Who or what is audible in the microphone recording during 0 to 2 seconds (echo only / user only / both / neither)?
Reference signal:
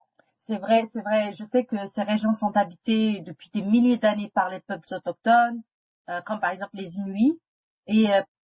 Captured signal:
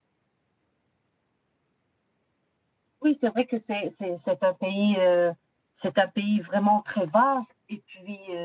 neither